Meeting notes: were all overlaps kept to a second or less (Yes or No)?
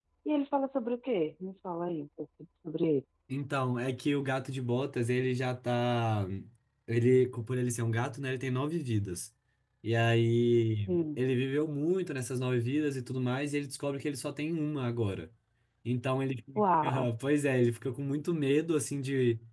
Yes